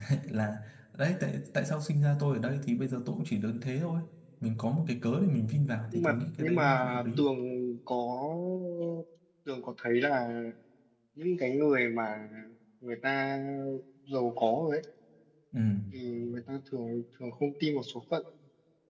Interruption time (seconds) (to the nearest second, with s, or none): 6 s